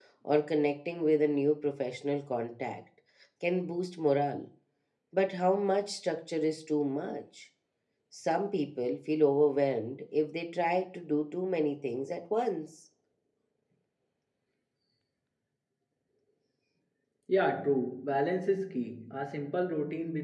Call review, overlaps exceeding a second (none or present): none